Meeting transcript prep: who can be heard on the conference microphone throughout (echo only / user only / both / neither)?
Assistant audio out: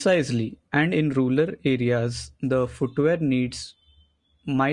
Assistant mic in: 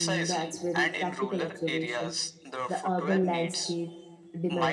both